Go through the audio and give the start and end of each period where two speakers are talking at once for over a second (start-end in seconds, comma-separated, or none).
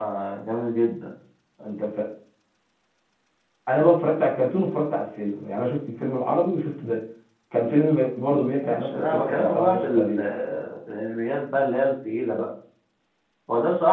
8.6-10.2